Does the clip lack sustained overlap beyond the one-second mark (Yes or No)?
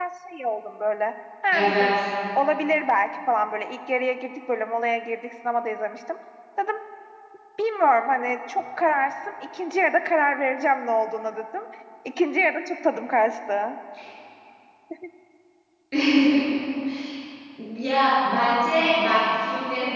Yes